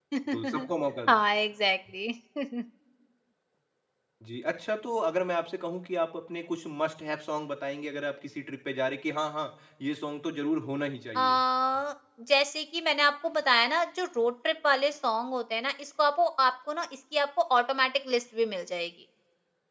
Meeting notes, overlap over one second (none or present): none